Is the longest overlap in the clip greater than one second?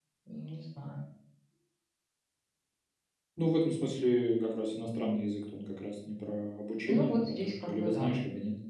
Yes, from 6.8 s

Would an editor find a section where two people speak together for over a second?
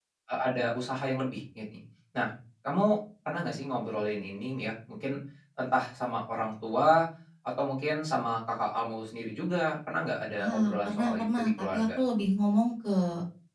Yes, from 10.4 s

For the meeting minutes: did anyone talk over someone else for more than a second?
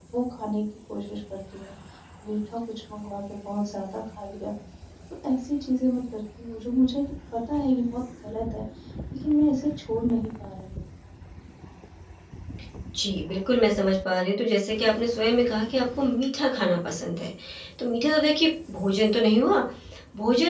No

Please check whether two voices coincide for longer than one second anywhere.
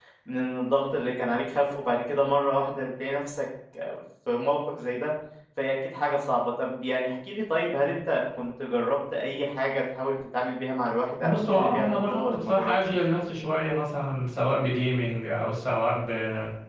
Yes, from 11.2 s

